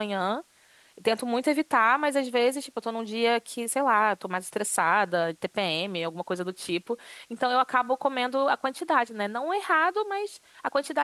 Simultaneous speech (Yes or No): No